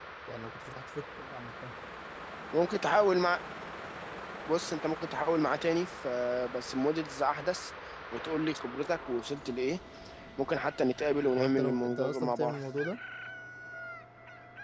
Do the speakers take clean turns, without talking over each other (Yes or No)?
No